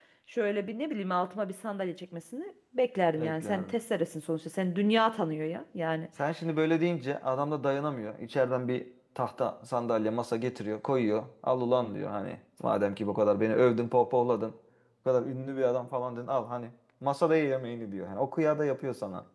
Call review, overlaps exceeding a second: none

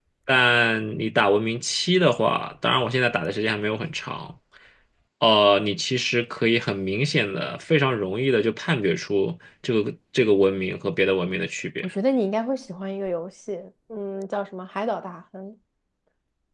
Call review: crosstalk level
none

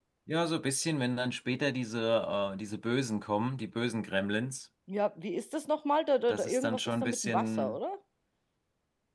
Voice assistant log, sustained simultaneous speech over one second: present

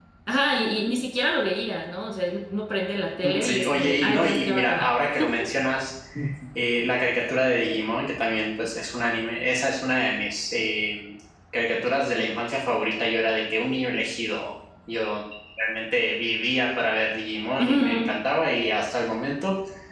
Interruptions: present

